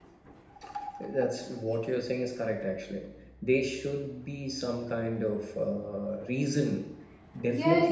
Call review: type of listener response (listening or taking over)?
taking over